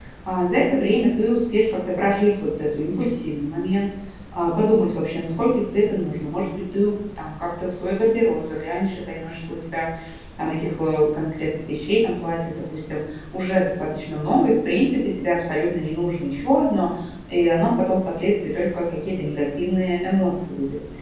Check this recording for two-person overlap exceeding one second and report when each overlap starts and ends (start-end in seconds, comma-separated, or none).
none